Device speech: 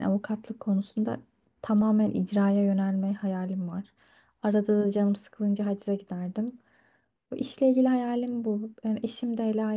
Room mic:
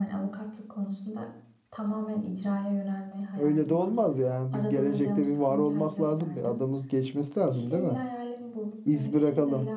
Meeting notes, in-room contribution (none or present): present